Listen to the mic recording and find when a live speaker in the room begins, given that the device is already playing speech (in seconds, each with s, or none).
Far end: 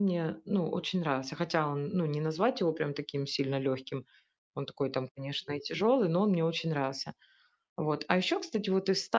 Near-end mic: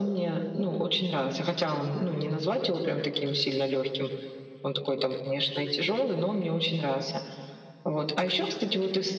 none